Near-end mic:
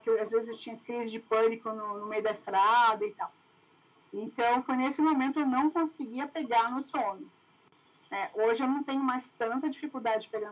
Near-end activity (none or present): none